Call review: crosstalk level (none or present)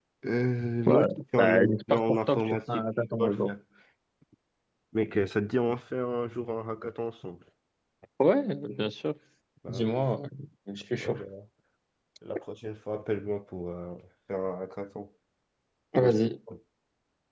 present